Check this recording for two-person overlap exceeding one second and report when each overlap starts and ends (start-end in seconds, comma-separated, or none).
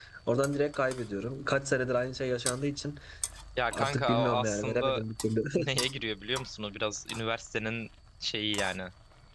3.7-5.0